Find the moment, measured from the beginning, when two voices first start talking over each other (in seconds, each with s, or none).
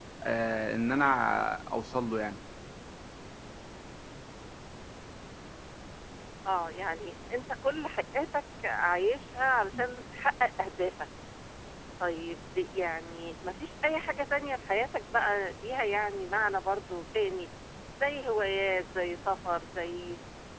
none